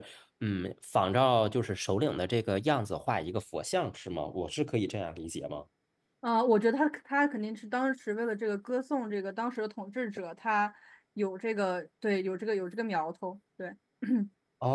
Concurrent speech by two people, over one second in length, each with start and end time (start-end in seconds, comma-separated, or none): none